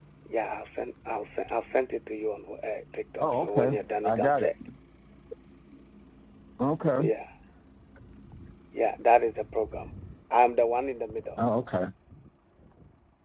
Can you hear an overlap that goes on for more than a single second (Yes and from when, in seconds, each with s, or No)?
Yes, from 3.2 s